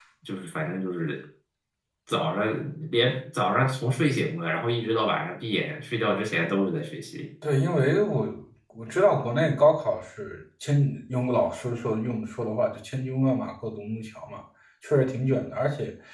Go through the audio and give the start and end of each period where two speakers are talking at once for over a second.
none

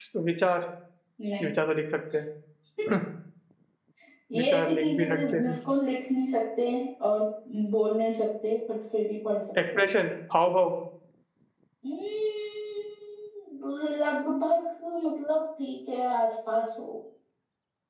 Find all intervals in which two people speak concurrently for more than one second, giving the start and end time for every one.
4.4-5.6

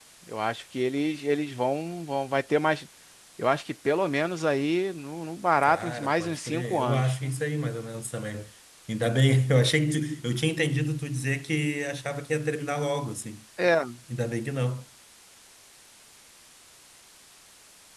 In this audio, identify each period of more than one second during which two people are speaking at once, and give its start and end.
5.6-7.1

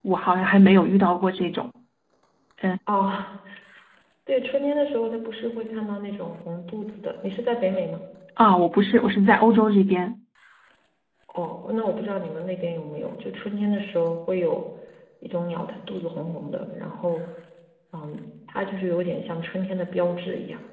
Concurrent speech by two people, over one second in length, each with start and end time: none

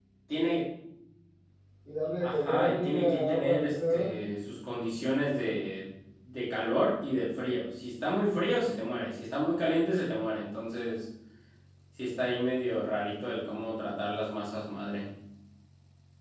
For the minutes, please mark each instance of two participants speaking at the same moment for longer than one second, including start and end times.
2.2-4.1

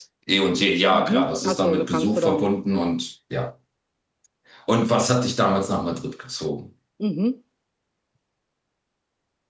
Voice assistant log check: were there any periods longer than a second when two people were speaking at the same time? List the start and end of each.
0.9-2.5

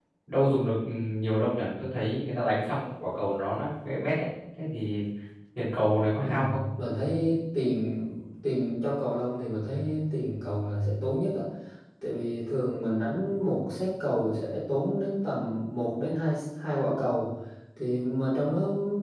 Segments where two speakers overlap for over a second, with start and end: none

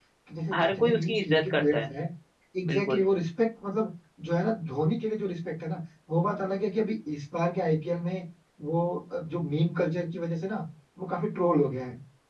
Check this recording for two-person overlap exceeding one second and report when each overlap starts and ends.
0.5-1.8

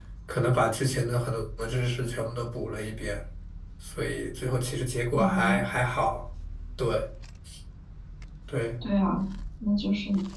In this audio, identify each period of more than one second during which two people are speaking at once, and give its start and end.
none

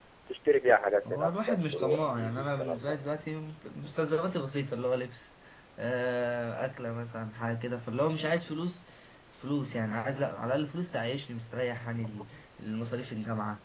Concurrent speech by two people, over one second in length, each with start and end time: 1.1-3.0

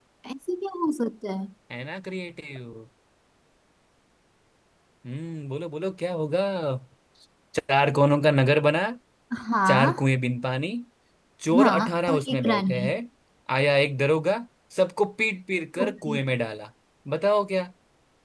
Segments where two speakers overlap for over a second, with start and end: 11.6-12.9

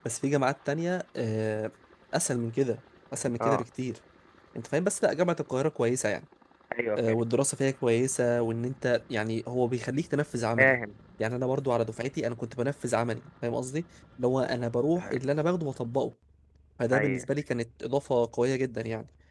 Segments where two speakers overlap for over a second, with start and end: none

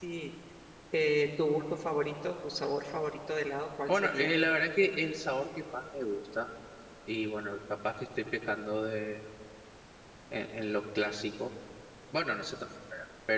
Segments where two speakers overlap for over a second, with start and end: none

